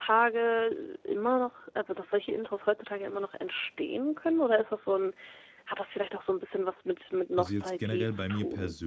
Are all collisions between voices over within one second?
No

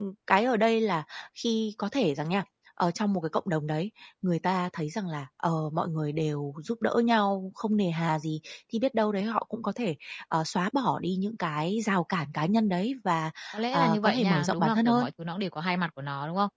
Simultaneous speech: Yes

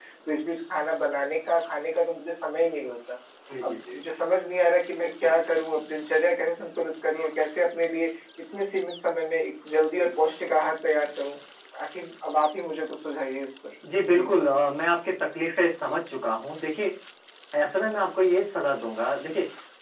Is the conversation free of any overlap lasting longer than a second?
Yes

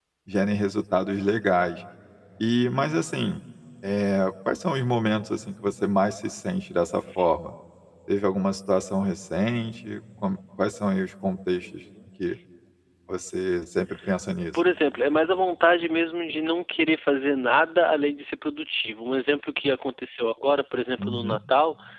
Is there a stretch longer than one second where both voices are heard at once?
No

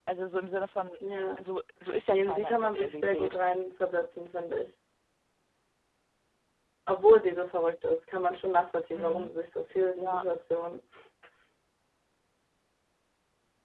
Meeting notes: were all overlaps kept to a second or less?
No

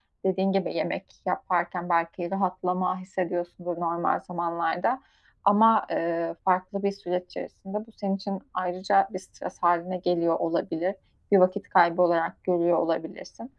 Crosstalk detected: No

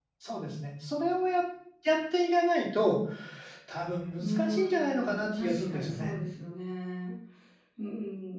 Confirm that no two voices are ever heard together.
No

